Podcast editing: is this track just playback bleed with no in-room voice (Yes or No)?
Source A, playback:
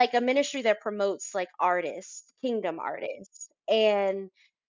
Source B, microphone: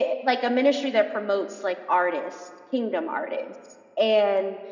Yes